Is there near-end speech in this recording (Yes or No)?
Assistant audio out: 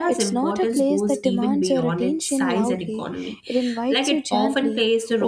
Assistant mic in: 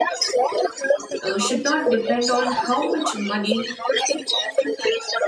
Yes